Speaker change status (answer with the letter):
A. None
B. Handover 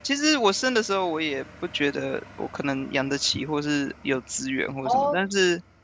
A